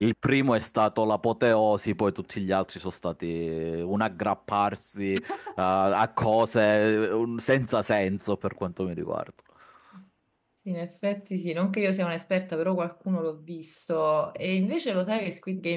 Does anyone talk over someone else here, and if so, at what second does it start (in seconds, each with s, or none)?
none